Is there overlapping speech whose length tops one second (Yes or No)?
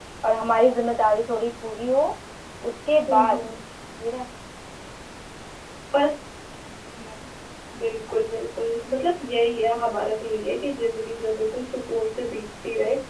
No